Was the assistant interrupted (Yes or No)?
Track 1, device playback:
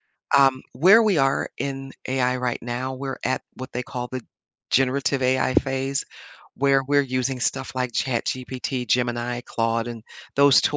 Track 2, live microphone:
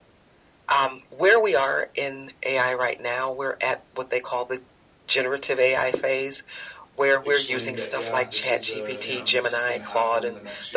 Yes